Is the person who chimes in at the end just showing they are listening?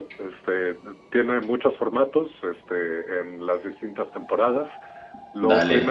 Yes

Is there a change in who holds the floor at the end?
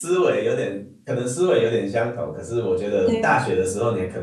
No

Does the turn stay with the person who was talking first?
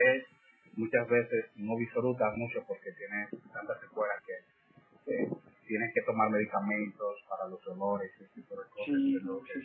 No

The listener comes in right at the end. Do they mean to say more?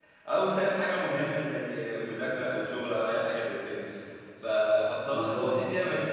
No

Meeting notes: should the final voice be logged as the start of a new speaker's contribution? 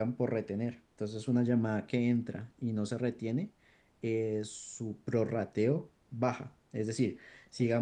Yes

